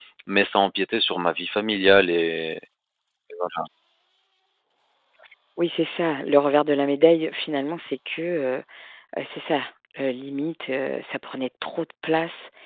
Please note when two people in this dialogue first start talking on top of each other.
none

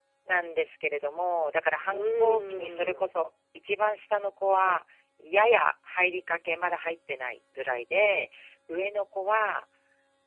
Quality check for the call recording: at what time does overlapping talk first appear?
1.9 s

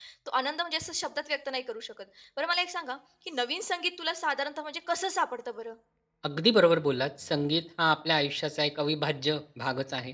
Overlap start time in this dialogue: none

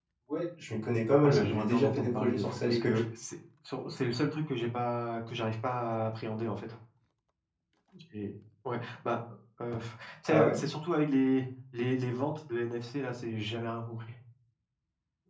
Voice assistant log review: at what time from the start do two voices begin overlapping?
1.2 s

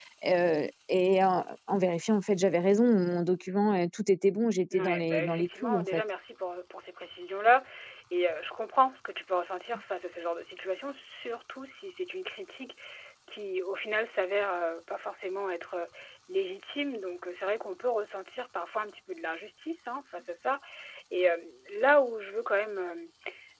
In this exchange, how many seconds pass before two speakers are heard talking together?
4.7 s

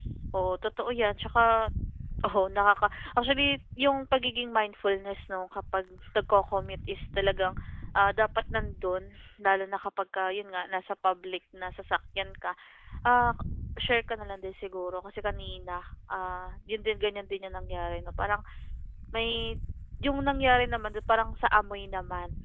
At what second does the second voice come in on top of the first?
none

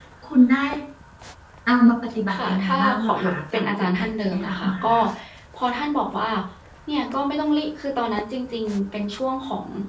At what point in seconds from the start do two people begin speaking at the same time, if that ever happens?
2.3 s

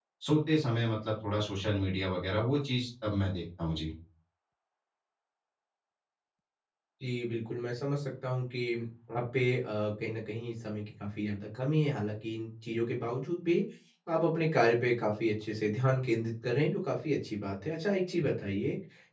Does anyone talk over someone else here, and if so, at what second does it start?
none

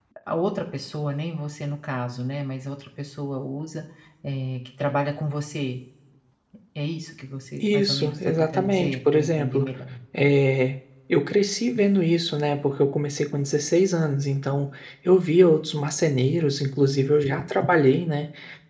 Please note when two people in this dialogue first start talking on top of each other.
7.6 s

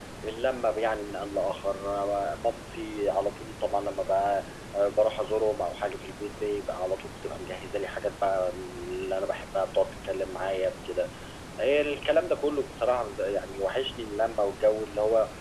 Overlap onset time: none

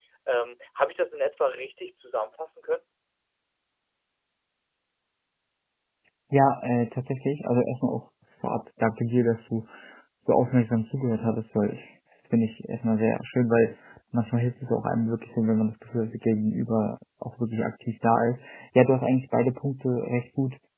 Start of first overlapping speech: none

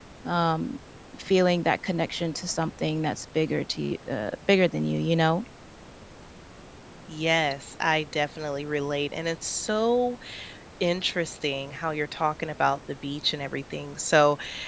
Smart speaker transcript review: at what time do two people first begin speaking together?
none

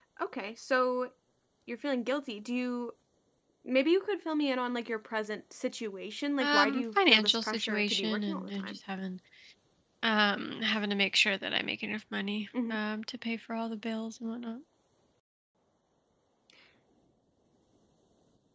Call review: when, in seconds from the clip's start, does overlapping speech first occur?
6.4 s

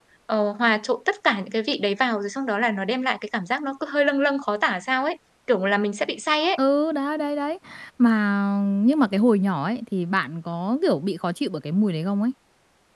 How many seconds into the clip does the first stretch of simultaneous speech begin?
none

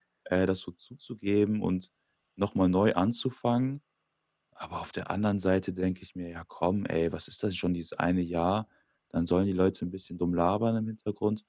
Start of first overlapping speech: none

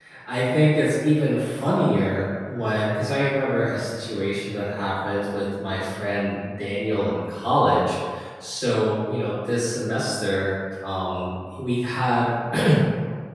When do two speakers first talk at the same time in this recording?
none

